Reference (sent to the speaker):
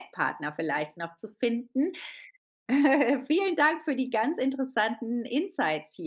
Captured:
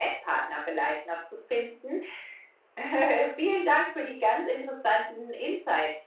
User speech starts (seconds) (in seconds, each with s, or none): none